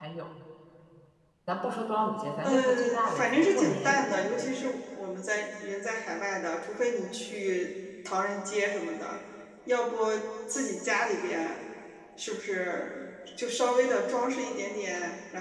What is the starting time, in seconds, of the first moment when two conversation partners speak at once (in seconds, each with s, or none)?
2.4 s